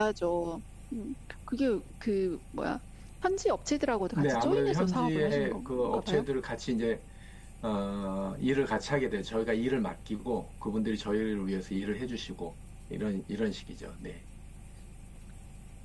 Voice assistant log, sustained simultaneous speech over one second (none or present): present